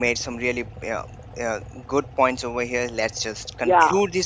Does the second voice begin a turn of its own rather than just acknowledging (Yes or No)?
No